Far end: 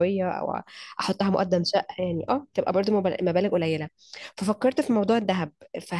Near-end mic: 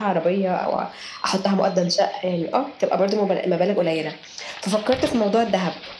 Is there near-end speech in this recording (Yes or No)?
No